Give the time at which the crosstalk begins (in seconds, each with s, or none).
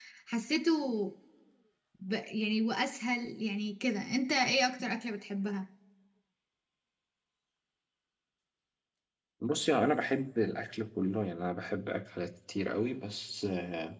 none